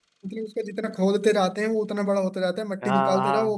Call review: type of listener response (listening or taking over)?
taking over